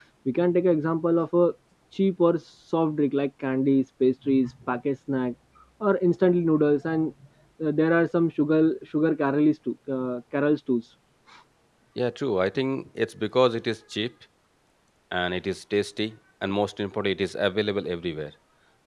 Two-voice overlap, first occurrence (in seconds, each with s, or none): none